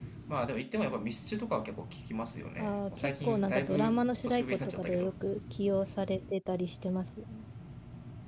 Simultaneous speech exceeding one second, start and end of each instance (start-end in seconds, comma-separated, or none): 2.6-5.1